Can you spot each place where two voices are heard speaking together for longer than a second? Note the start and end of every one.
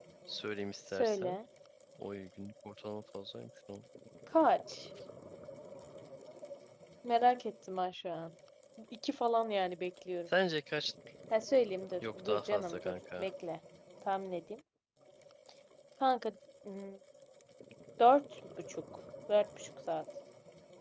12.0-13.3

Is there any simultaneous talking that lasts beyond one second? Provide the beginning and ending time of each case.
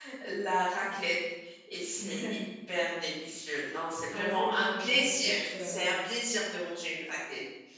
4.1-5.7

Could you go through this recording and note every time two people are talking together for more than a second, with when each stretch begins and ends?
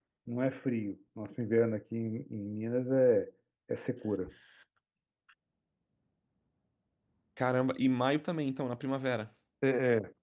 none

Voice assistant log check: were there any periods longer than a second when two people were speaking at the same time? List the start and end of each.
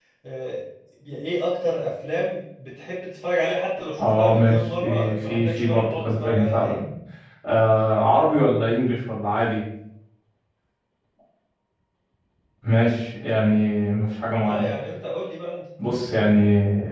4.0-6.8

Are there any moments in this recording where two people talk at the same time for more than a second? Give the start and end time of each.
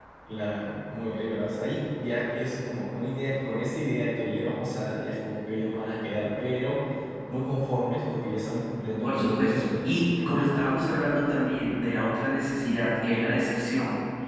9.0-10.4

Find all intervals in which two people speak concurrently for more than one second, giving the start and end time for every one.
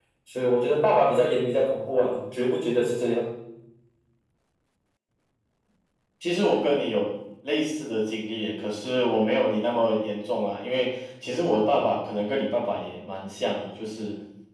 none

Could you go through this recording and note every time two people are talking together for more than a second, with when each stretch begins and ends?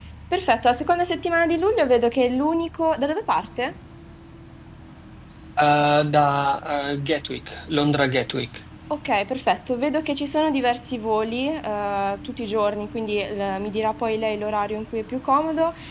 none

